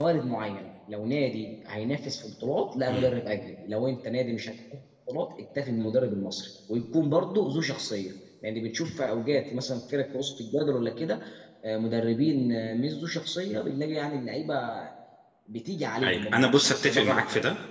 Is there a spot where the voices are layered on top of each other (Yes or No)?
Yes